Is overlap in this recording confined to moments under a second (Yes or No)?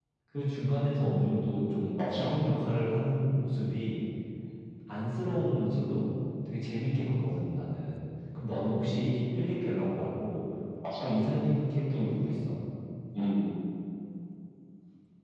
Yes